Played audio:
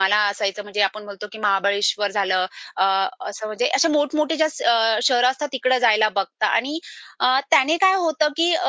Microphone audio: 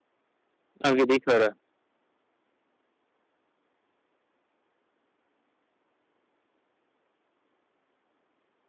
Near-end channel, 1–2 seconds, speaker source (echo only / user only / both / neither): user only